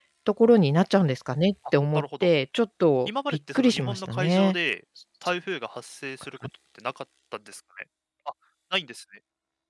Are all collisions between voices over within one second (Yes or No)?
No